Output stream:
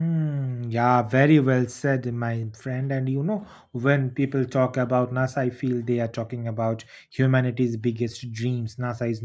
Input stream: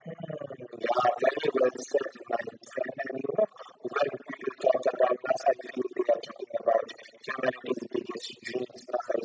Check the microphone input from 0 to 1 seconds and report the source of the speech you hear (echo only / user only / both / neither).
echo only